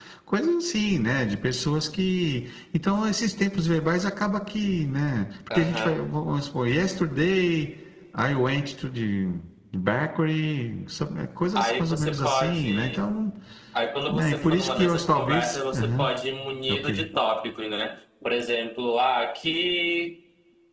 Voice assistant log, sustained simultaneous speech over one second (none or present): present